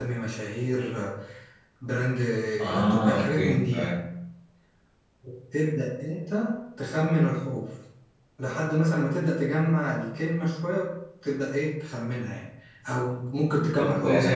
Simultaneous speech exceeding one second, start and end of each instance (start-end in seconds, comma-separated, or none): 2.6-3.9